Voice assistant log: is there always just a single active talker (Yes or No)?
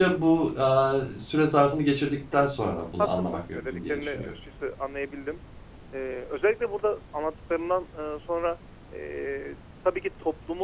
No